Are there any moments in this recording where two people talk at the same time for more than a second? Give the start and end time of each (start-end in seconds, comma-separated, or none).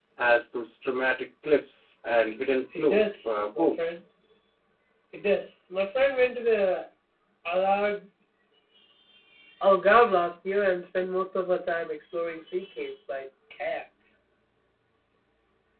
2.8-4.0